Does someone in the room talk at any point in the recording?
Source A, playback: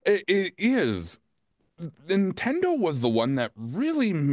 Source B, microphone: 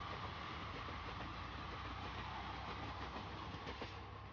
No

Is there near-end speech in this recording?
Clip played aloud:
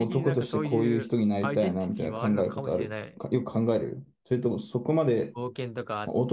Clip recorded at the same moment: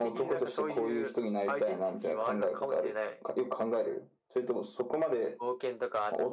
No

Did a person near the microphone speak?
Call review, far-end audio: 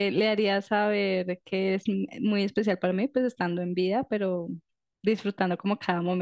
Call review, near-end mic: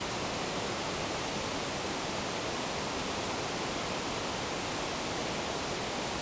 No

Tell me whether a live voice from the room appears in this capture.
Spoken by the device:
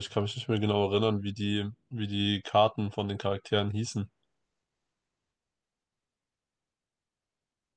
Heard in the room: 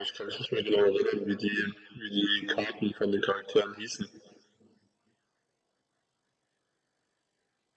No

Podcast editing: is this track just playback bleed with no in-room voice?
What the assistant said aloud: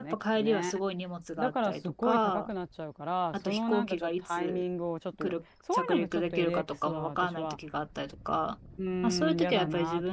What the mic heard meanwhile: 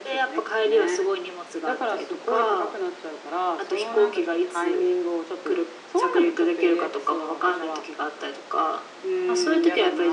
Yes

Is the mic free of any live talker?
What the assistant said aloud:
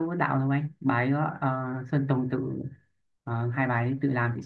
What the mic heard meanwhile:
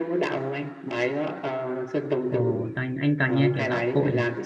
No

